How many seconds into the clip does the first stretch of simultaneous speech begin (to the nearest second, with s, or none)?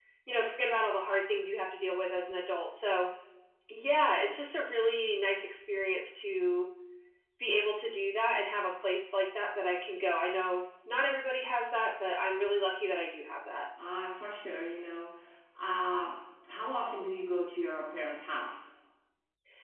none